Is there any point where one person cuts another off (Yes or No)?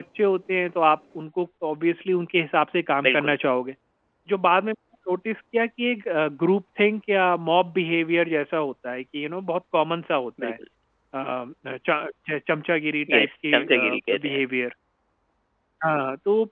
Yes